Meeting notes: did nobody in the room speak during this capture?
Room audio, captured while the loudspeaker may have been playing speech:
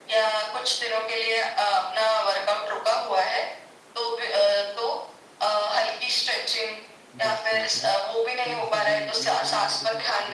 No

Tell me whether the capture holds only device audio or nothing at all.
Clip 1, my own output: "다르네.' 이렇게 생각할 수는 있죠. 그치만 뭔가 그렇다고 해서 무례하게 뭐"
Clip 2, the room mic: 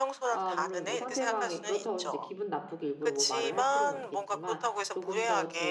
No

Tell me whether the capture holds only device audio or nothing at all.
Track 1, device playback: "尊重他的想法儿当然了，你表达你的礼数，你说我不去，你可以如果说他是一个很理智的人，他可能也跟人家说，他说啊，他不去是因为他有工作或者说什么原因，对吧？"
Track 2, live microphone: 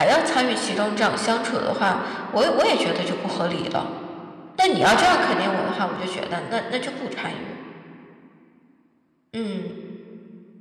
No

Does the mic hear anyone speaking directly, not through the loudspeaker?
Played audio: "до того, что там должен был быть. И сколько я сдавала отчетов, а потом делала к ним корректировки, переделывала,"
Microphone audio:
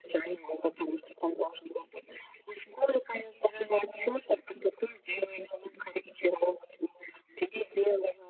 No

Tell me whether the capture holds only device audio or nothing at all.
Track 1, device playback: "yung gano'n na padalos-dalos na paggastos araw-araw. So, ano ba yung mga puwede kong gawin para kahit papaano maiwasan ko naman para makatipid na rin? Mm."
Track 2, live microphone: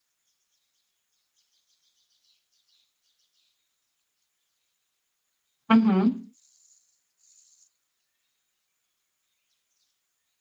No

